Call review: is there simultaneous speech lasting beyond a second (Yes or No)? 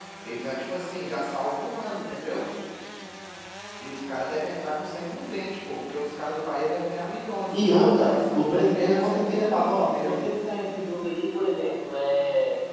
Yes